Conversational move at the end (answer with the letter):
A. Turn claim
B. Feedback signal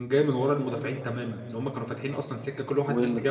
A